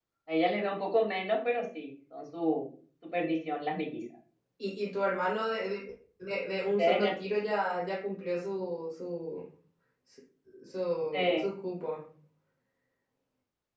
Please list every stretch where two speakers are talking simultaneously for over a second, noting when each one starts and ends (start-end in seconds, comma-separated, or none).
none